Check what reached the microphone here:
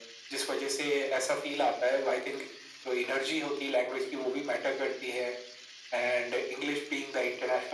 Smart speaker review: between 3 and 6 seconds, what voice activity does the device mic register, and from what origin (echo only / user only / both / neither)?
echo only